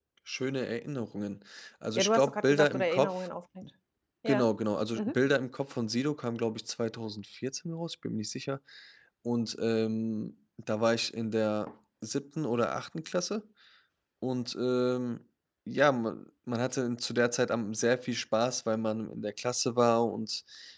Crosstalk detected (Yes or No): Yes